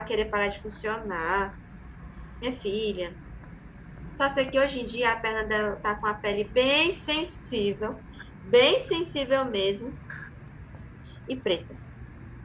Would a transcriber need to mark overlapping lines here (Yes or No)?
No